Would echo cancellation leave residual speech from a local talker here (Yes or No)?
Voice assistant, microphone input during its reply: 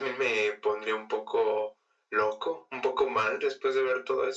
No